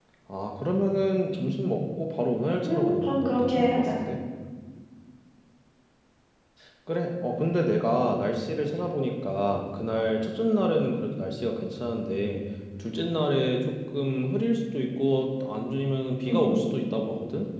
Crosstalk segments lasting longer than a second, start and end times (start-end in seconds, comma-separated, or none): 2.6-4.0